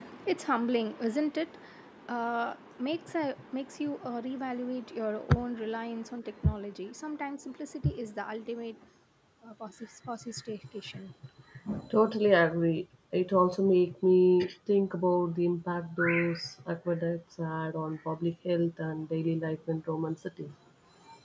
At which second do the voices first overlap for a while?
none

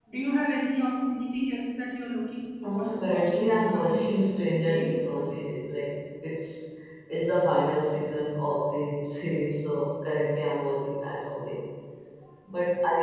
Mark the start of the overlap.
2.6 s

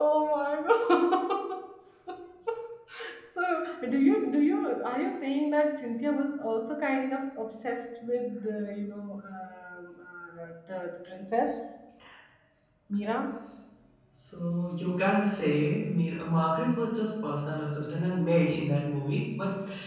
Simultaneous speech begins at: none

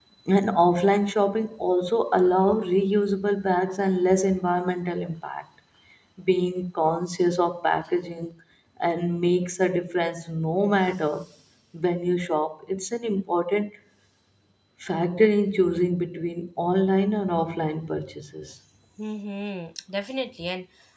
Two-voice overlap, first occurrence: none

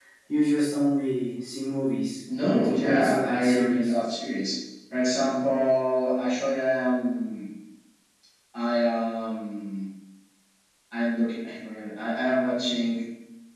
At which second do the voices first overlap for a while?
2.3 s

